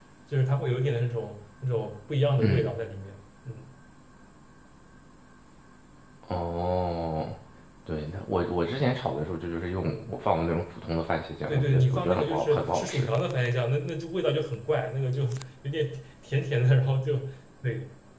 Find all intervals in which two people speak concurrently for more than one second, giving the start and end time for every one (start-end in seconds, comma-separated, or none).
11.5-13.1